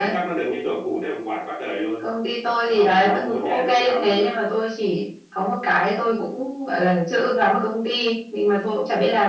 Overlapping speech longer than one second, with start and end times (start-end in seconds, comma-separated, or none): 2.7-4.3